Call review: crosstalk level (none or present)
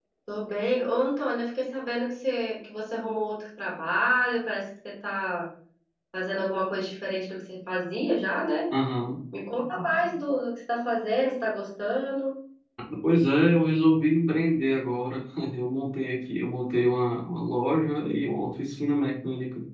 none